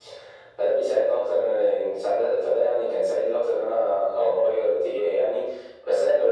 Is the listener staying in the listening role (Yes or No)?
Yes